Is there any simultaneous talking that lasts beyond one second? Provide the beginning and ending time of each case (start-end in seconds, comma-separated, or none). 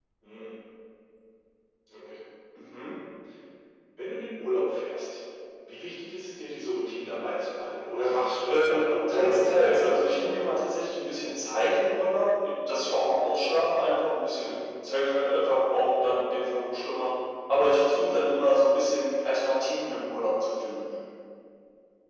8.5-10.4